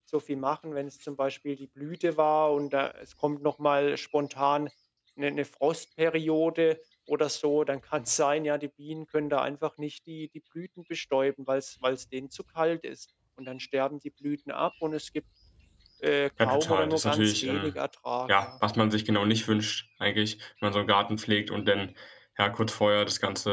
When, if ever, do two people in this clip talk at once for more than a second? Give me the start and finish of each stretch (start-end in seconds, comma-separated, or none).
16.4-17.8